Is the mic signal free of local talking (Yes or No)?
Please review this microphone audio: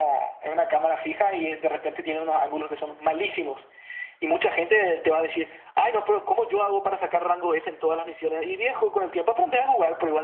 Yes